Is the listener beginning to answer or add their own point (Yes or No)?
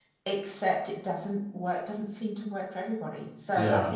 No